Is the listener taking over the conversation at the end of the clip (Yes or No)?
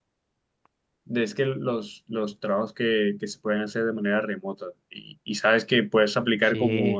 No